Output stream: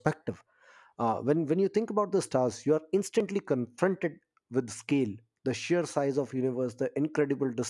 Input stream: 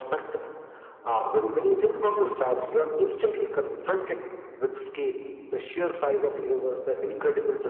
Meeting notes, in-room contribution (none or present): none